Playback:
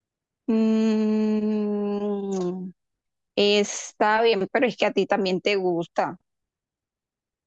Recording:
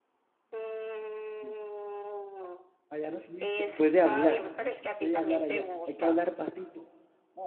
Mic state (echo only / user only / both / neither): both